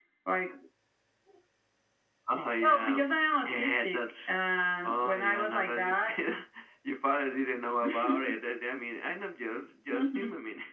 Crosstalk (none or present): present